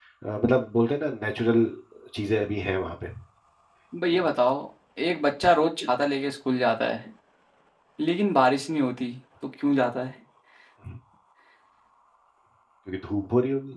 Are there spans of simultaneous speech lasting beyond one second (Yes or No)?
No